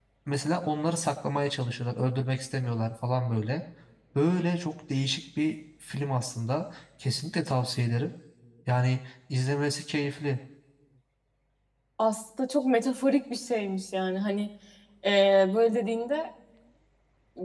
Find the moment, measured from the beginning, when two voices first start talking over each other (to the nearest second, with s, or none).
none